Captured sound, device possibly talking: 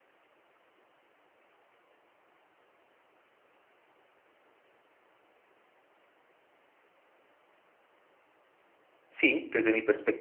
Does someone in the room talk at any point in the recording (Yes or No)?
Yes